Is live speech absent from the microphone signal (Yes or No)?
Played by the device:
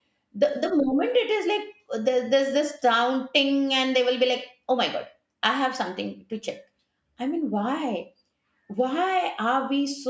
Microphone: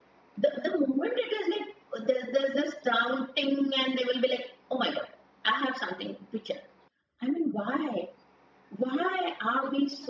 Yes